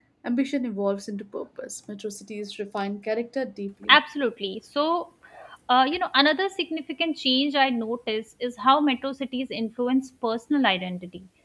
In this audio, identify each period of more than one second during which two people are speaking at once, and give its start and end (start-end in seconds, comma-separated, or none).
none